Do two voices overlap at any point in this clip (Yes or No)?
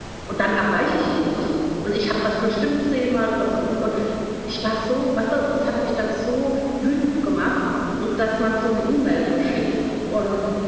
No